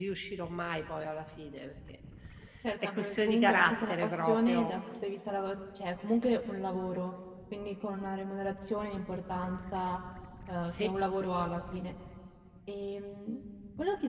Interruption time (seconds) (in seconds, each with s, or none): 2.9 s